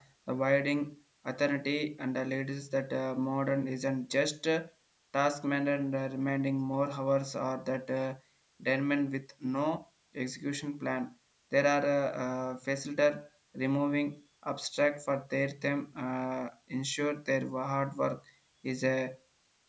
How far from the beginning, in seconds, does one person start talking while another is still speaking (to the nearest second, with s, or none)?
none